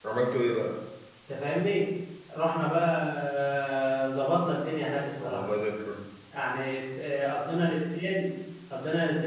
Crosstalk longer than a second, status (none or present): none